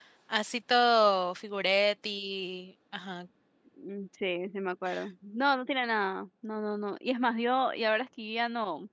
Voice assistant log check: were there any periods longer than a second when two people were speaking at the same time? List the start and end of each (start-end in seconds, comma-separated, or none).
none